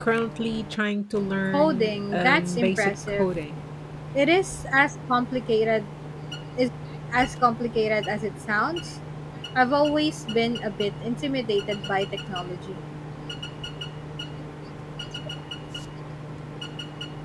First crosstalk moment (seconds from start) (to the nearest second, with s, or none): 2 s